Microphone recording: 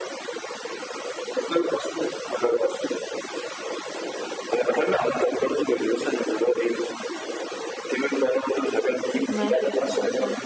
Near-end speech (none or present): present